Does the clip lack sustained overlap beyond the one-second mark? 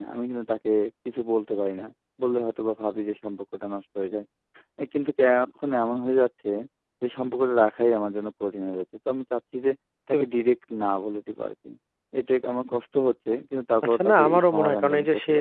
No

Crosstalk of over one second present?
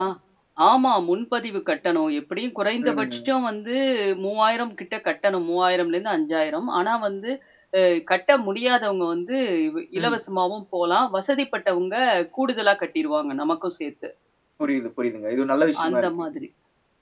No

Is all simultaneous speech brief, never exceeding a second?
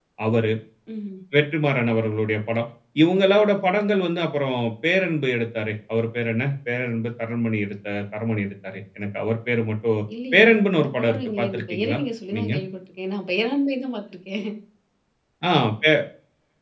No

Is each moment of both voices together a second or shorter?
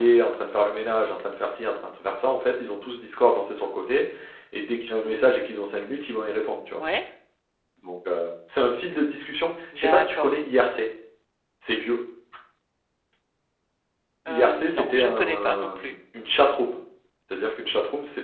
No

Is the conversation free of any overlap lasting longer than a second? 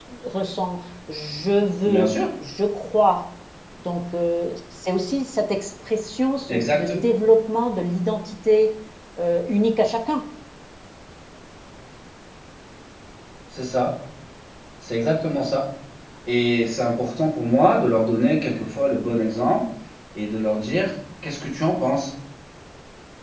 Yes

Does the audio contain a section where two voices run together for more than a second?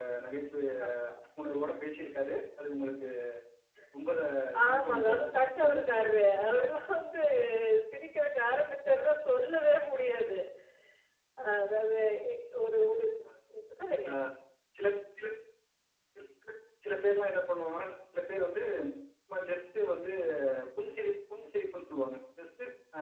Yes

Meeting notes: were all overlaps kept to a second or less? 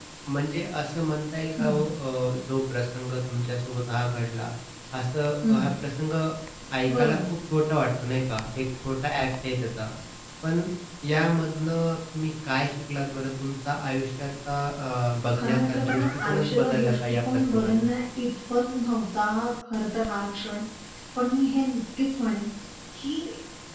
No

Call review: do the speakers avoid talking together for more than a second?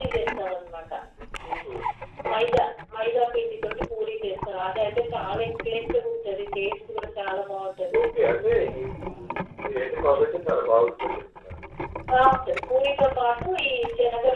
Yes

